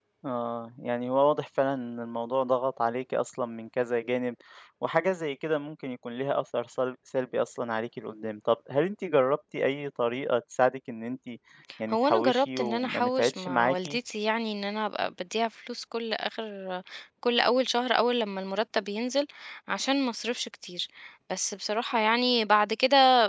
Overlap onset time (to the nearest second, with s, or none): 12 s